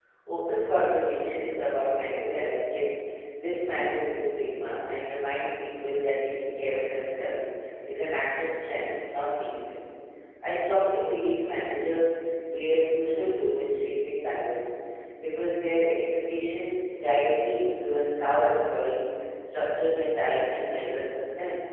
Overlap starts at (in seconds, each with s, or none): none